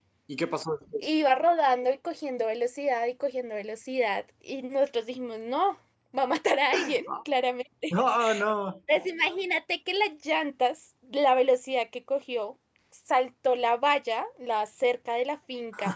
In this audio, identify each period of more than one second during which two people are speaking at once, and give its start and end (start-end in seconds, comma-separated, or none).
none